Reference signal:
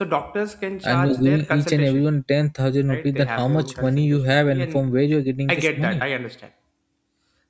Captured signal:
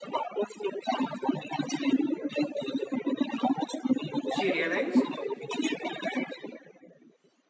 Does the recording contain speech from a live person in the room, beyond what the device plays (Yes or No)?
Yes